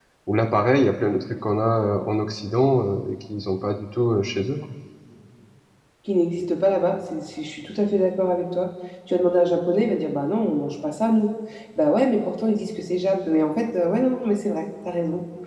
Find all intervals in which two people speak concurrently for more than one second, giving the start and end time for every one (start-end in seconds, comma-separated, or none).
none